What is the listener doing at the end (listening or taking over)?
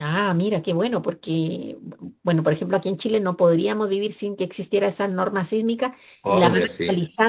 listening